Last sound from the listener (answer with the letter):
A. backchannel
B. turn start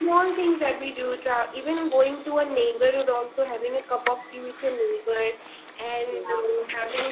A